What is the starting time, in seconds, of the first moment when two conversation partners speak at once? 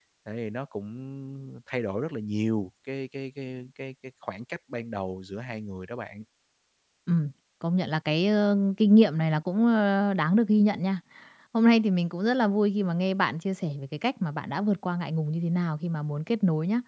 none

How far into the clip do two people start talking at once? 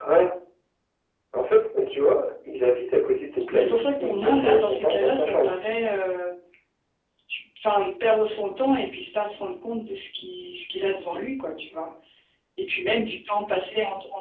3.5 s

